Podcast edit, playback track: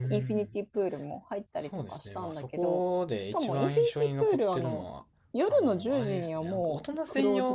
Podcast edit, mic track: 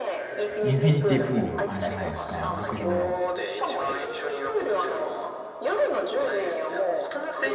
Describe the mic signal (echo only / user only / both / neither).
both